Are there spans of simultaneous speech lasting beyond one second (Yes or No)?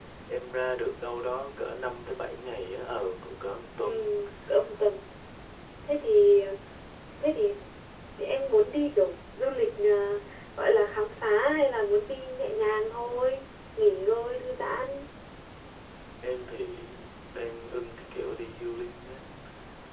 No